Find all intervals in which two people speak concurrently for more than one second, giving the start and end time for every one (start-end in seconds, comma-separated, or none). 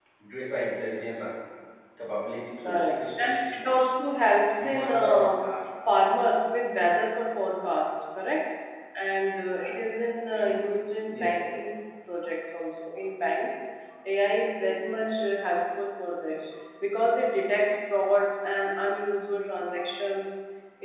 2.6-3.9